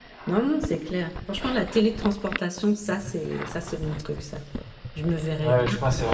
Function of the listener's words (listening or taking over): taking over